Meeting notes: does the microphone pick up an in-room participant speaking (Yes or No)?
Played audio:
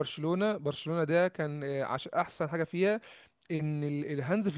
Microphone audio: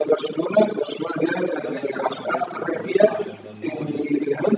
Yes